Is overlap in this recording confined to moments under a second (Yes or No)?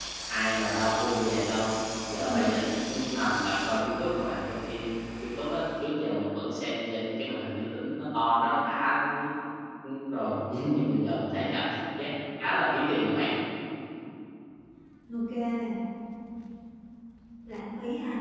Yes